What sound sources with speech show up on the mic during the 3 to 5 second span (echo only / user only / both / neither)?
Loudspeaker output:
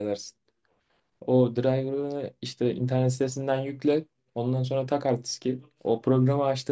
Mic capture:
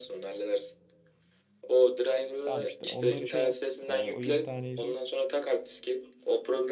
both